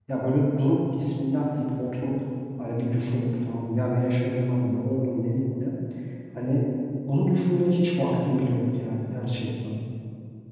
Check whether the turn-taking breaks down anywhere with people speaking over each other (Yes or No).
No